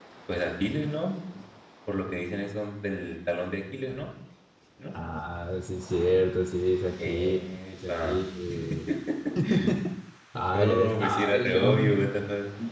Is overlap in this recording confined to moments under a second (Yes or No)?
No